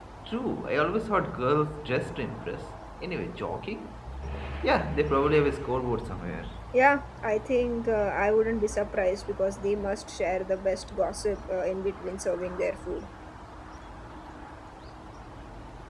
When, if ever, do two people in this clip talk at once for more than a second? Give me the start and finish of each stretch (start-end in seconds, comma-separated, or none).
none